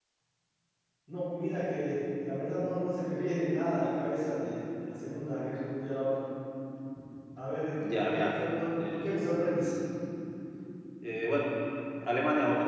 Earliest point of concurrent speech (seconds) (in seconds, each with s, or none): 7.8 s